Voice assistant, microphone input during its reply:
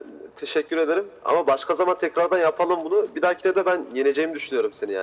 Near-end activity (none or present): none